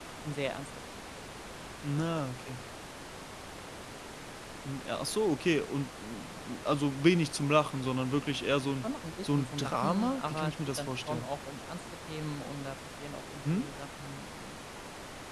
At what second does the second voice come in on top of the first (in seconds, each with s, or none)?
9.2 s